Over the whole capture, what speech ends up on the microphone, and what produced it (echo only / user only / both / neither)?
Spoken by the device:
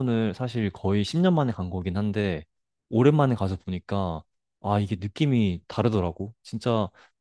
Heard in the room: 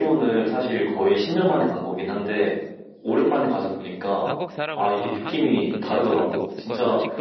both